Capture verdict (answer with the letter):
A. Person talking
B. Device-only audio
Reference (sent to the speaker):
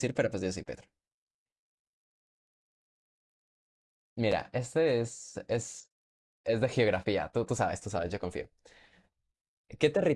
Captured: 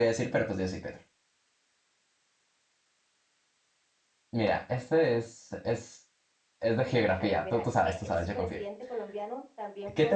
A